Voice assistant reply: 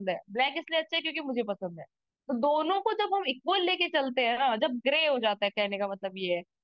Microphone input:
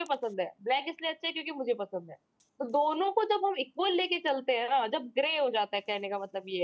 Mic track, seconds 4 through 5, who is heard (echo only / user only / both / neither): echo only